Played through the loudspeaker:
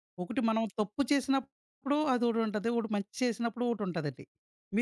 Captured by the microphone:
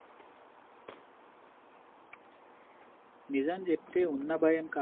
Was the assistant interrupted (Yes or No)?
Yes